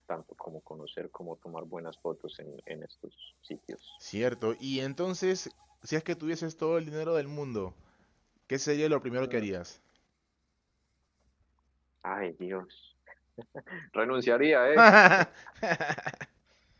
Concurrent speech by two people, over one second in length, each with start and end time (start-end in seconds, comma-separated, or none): none